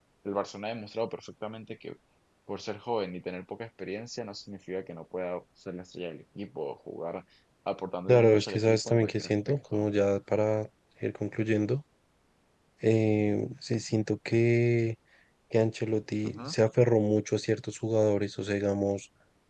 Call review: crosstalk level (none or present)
present